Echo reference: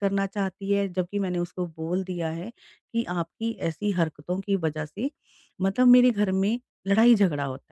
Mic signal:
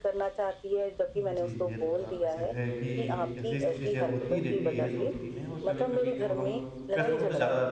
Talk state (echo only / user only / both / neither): both